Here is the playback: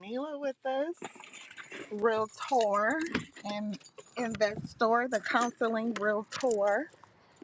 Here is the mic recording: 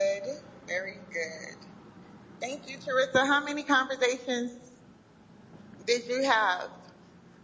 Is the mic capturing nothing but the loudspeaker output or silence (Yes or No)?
No